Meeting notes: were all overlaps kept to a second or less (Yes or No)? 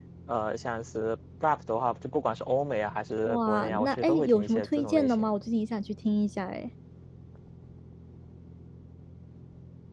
No